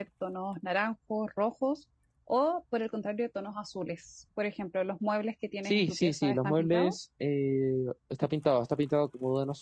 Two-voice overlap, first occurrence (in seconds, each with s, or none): 5.7 s